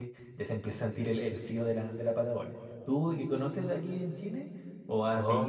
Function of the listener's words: taking over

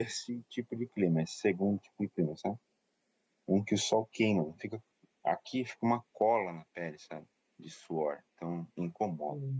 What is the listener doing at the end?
taking over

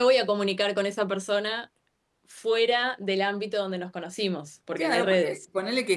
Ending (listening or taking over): taking over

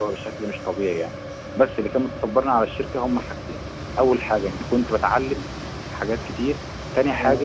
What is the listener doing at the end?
listening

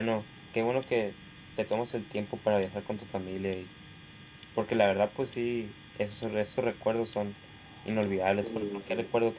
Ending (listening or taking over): listening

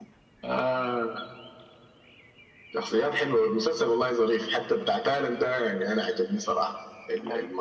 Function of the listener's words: listening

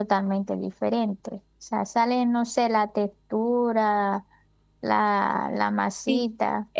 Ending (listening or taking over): taking over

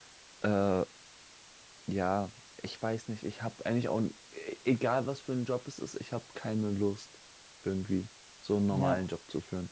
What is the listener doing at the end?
listening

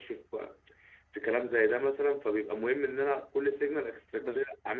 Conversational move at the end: listening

